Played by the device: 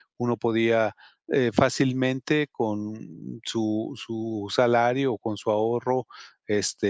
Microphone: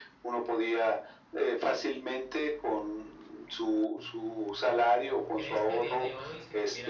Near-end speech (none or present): present